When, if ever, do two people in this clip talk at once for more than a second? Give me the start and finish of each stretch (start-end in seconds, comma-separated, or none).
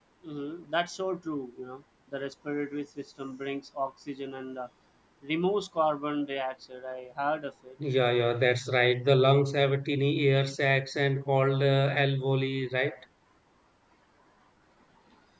none